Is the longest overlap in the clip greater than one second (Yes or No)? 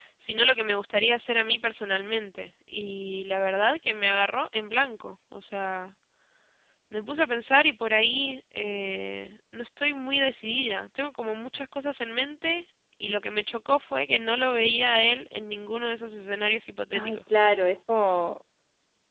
No